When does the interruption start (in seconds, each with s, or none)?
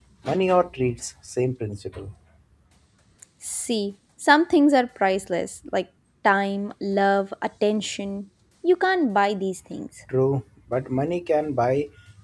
none